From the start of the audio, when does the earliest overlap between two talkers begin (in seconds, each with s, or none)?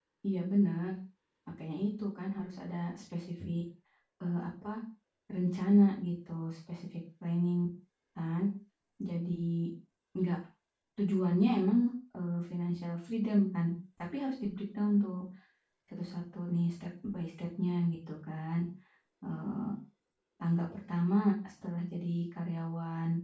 none